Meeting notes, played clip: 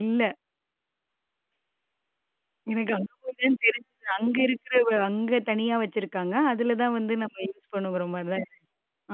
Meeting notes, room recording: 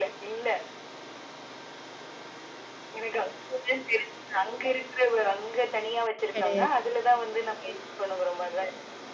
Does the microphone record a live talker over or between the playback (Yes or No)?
Yes